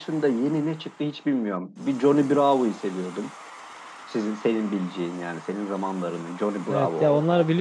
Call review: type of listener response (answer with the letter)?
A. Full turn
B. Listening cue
A